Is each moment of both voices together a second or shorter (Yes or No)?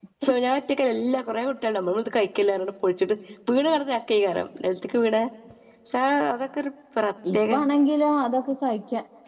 Yes